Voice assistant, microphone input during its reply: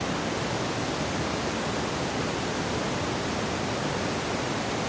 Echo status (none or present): none